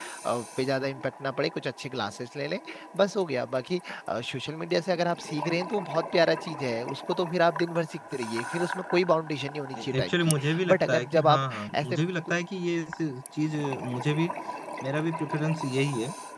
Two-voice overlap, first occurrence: 9.7 s

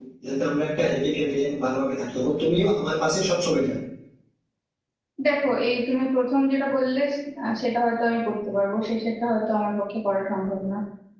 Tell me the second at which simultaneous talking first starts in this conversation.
none

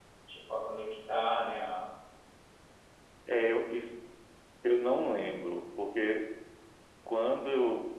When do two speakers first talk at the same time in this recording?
none

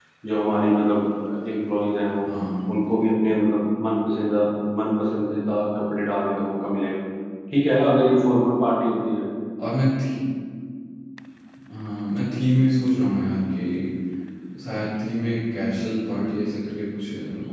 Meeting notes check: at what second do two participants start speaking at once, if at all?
none

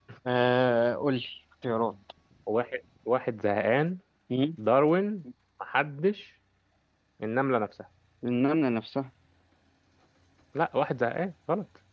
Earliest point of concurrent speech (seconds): none

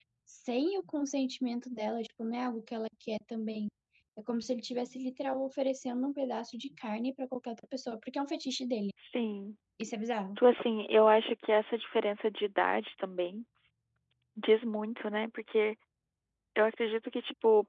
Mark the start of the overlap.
none

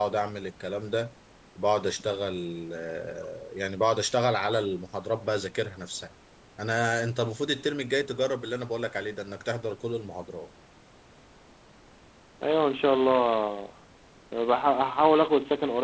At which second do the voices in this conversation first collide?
none

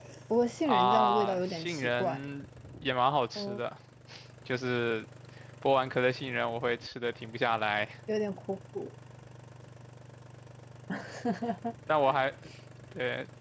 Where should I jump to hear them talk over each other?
0.7 s

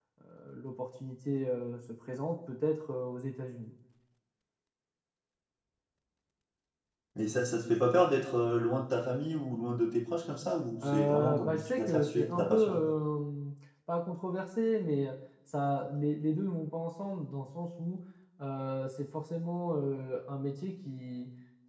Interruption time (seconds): 10.8 s

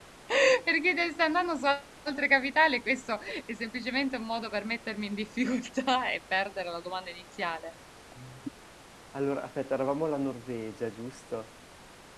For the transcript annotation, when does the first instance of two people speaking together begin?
none

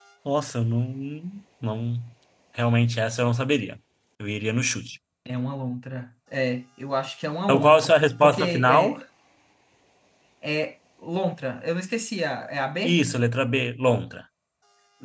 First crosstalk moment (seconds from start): 7.5 s

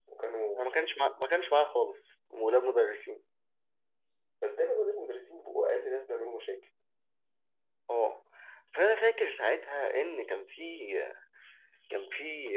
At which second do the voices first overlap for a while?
none

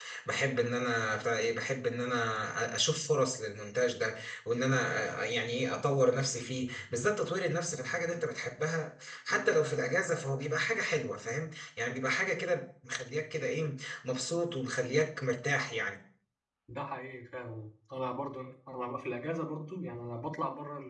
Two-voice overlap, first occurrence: none

